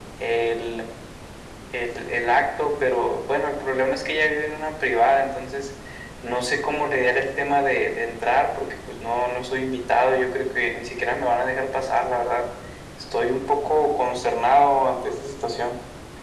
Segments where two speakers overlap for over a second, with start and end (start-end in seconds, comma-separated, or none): none